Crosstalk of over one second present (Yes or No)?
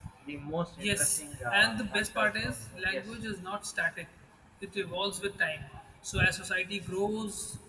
Yes